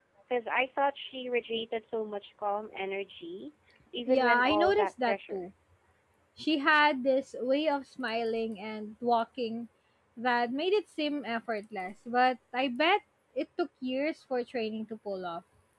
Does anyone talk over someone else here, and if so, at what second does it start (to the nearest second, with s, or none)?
4 s